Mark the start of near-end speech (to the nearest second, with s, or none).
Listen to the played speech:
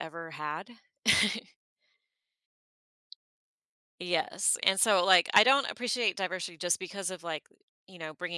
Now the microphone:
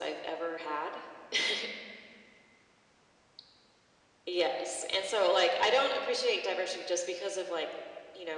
none